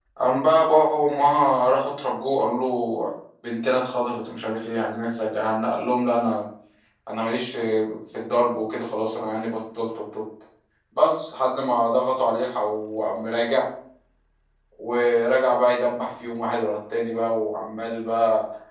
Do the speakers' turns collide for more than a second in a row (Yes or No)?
No